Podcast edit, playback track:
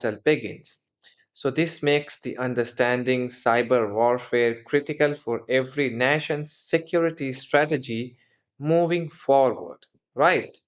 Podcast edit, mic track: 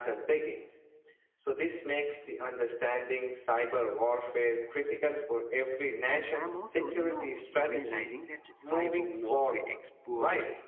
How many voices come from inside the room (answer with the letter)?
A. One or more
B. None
A